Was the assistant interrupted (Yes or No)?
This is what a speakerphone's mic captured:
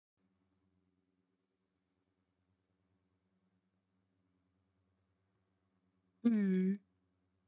Yes